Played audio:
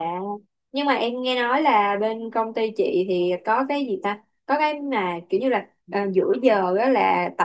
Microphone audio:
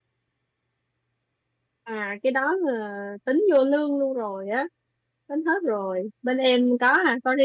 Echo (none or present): none